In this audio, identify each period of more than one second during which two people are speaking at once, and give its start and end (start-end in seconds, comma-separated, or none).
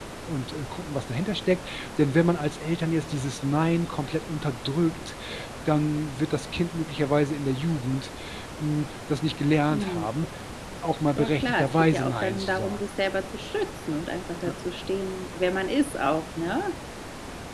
11.2-12.8